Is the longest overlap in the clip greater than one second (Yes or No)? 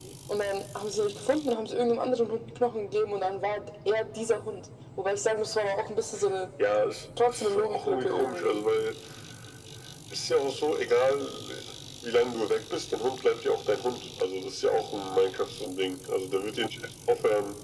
Yes